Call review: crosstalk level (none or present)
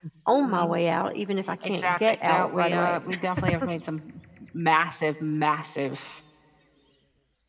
present